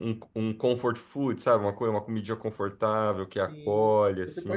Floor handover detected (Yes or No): Yes